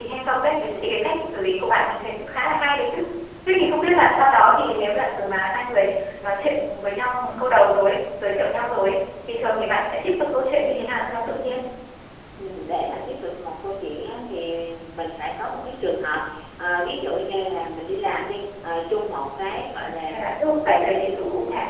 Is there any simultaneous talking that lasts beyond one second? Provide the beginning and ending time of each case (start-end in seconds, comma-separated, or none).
19.8-21.1